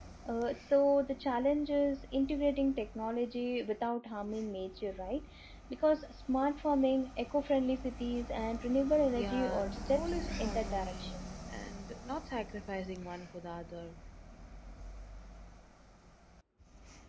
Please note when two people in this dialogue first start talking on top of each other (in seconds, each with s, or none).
9.1 s